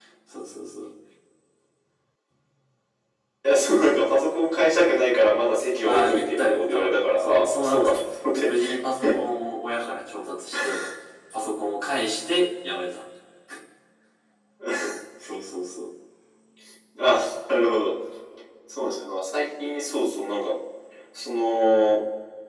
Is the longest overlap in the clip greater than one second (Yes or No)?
Yes